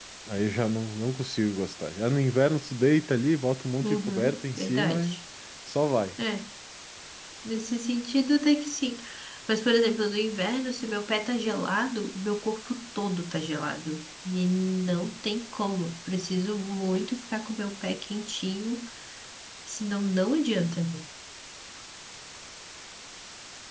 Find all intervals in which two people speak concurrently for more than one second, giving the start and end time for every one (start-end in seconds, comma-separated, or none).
3.8-5.2